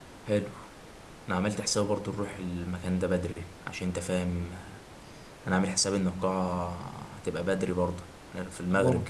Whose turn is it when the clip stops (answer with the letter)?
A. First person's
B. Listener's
A